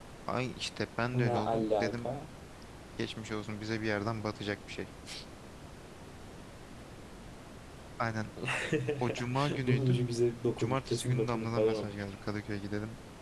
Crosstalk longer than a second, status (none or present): present